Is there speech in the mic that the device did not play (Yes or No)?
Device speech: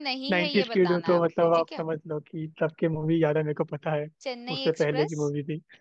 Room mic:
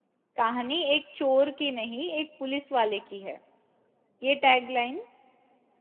Yes